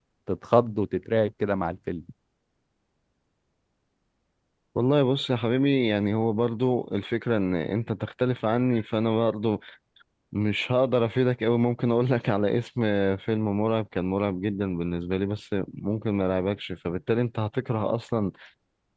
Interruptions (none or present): none